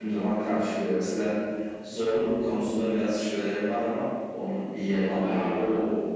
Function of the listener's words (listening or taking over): taking over